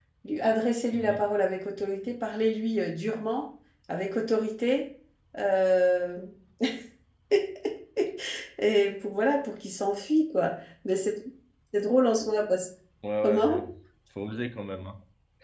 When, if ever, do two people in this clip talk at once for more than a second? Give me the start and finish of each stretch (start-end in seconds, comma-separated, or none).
none